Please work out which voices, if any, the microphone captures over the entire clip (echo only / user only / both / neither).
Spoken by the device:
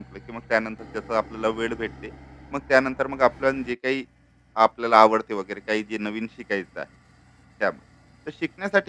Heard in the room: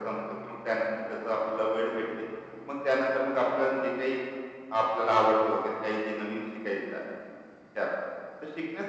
echo only